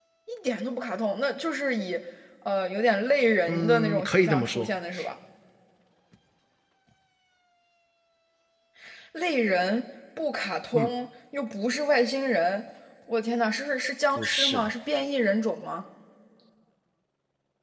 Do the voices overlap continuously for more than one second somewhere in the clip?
Yes, from 3.5 s

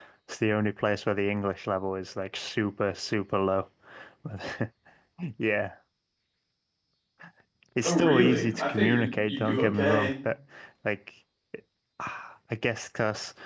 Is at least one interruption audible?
Yes, from 7.8 s

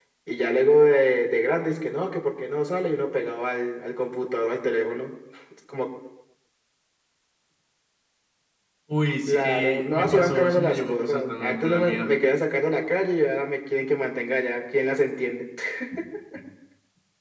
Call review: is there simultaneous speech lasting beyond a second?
Yes, from 9.3 s

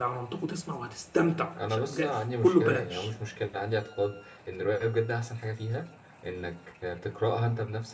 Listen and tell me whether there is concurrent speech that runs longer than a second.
Yes, from 1.6 s

